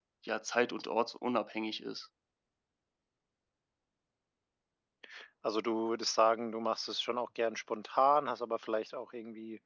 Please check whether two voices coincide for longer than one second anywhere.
No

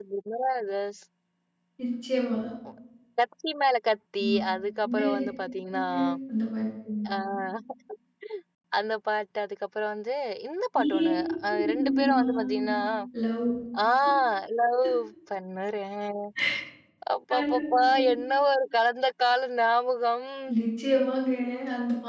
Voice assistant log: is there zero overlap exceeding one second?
No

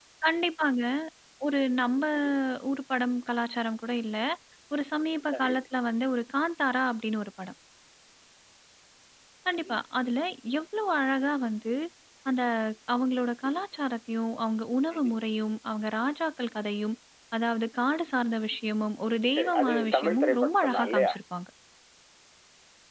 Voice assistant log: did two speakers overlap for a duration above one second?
Yes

